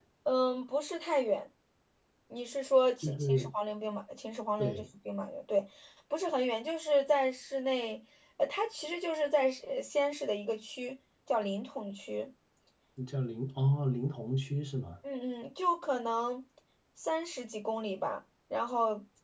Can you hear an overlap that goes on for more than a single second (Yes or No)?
No